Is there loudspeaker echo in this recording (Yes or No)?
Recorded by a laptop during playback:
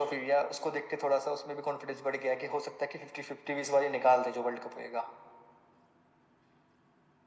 Yes